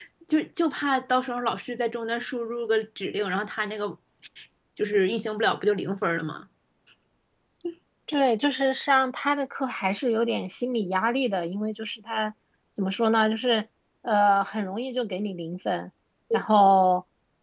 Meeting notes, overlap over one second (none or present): none